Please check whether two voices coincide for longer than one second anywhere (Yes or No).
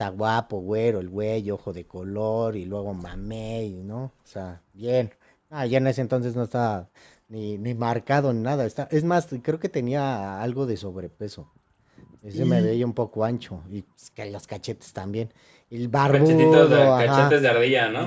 Yes